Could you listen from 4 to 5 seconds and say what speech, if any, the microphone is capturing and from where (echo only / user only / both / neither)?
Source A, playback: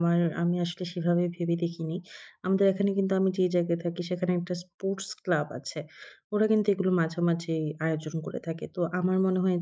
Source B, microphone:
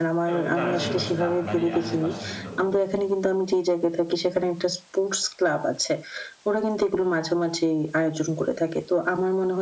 echo only